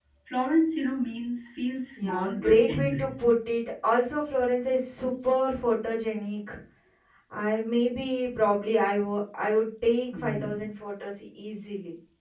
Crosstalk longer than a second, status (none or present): present